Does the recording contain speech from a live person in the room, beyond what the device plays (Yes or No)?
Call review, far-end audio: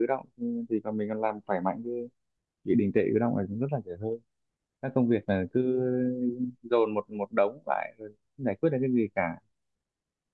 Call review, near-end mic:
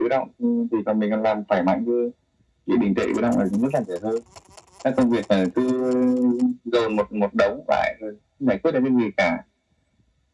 No